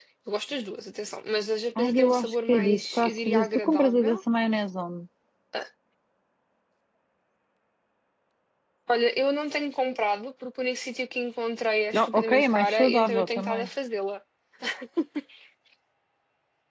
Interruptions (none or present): present